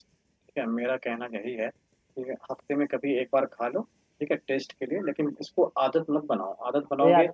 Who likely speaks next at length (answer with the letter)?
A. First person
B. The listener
B